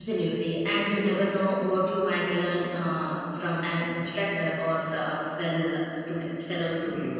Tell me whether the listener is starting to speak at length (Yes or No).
Yes